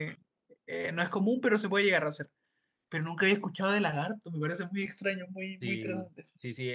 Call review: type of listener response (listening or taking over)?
taking over